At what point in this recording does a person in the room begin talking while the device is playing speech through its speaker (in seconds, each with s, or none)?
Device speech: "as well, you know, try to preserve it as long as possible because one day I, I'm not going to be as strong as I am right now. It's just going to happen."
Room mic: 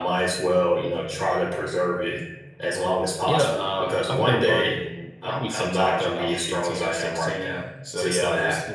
3.2 s